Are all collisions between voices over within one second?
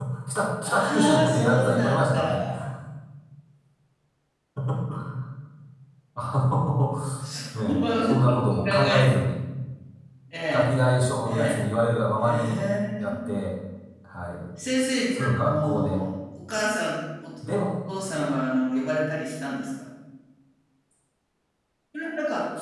No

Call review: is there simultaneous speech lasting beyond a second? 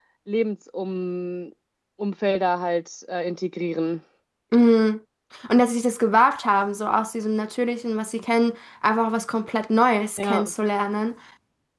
No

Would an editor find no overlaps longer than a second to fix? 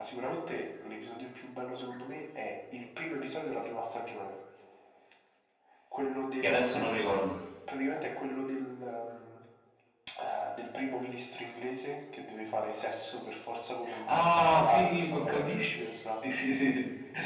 No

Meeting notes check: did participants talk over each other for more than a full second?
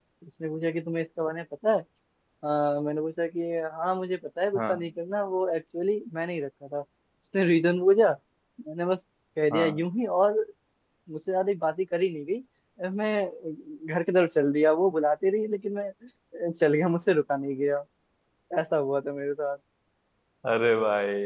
No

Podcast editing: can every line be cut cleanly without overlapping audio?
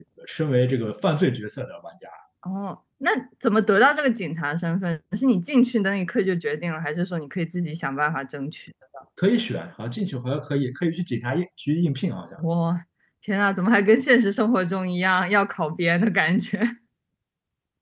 Yes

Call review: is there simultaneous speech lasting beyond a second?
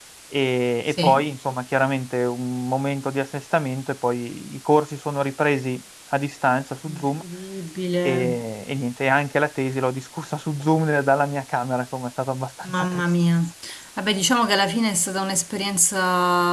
No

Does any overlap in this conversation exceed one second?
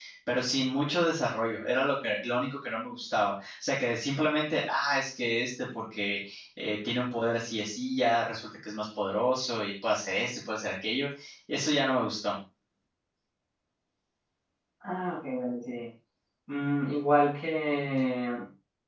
No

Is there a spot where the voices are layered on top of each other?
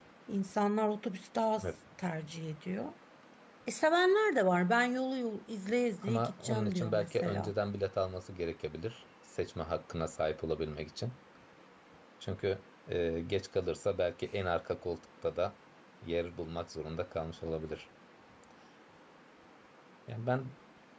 Yes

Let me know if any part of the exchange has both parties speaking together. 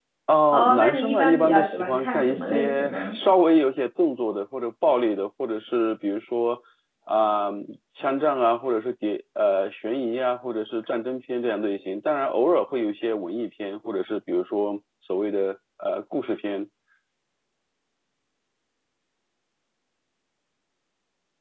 Yes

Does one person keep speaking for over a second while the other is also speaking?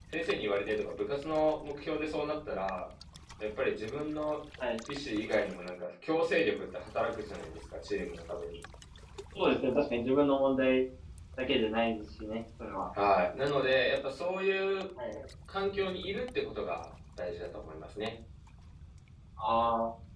No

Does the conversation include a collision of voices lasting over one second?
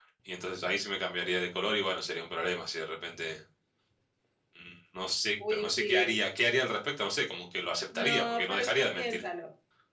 Yes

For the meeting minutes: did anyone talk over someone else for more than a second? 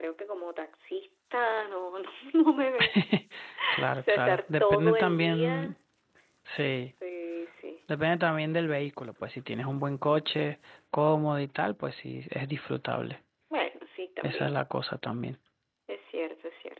Yes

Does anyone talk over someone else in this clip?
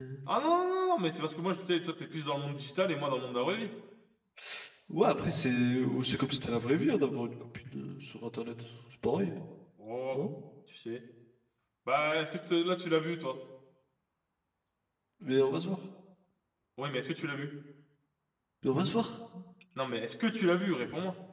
No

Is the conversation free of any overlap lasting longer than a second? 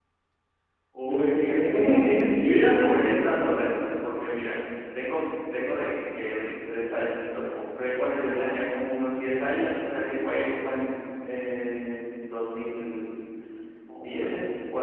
No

